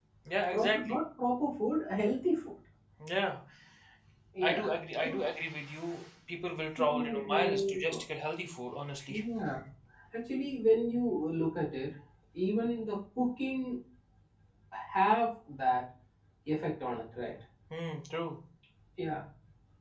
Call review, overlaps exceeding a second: present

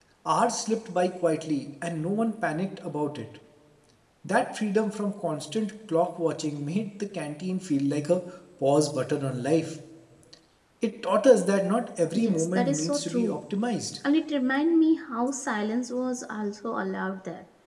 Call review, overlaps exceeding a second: present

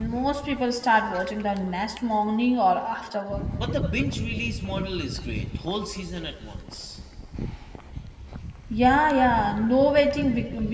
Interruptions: none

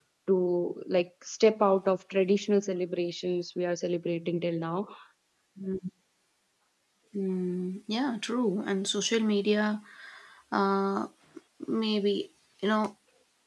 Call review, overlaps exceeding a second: none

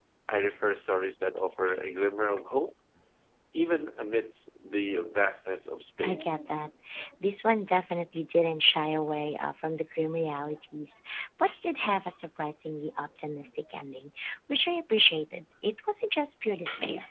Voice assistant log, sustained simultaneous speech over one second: none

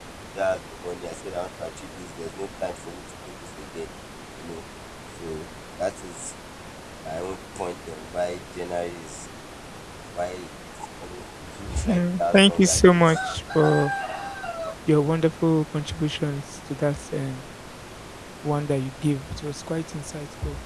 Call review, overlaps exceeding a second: present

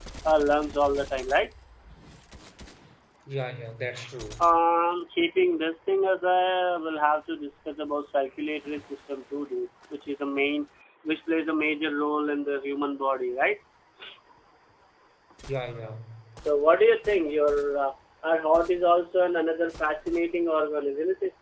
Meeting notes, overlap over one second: none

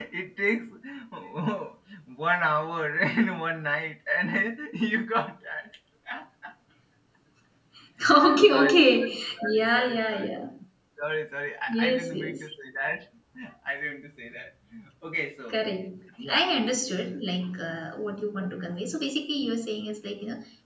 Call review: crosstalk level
present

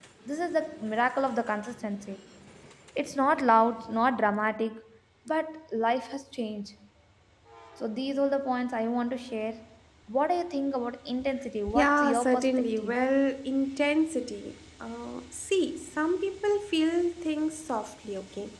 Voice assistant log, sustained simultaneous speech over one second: present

